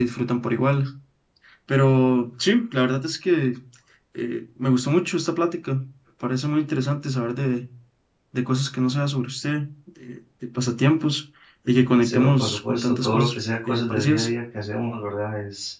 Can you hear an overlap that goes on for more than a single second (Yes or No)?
Yes